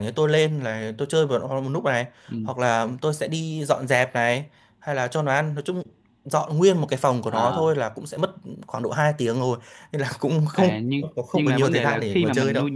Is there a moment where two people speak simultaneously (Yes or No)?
Yes